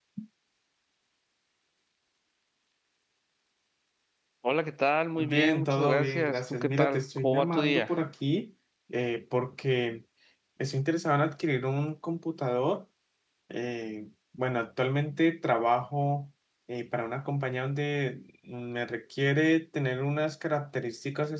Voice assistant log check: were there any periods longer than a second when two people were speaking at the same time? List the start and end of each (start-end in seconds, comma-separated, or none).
5.2-7.9